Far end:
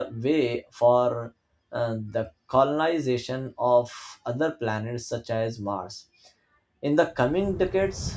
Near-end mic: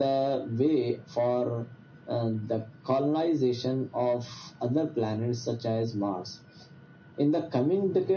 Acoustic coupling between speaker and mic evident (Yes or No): Yes